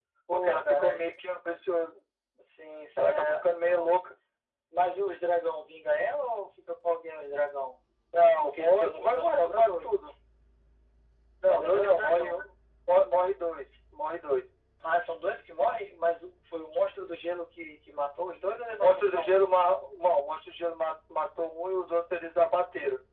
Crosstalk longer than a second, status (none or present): present